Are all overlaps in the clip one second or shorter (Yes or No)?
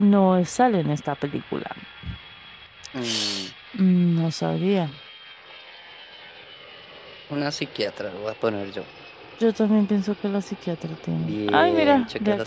No